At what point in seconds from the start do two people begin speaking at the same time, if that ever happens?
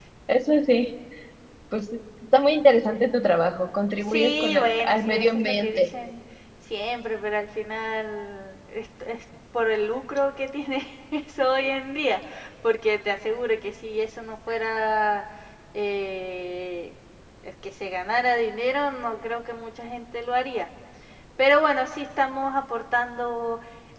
4.0 s

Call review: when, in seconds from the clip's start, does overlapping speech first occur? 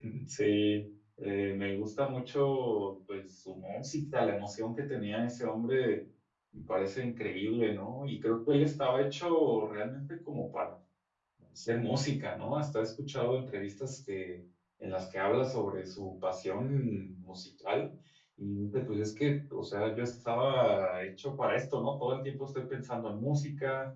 none

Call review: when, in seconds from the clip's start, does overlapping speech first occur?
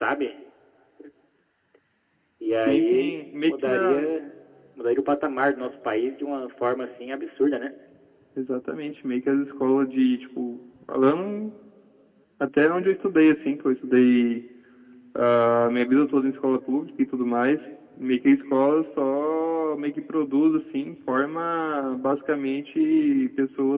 2.7 s

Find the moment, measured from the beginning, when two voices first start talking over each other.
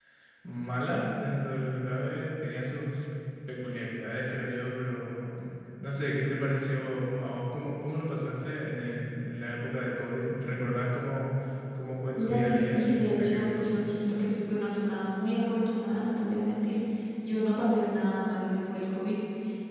12.2 s

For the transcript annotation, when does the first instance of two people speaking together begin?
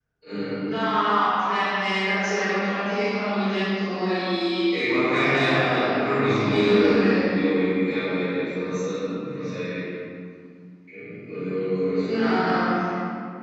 5.2 s

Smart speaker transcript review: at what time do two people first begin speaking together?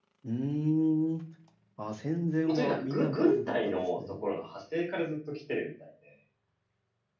2.5 s

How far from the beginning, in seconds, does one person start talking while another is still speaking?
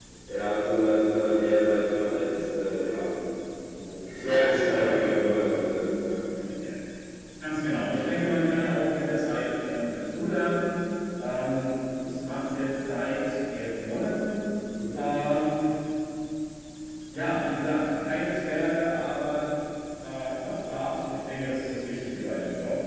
4.2 s

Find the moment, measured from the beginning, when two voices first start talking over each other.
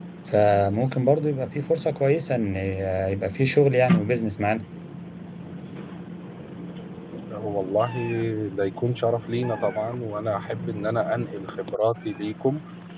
none

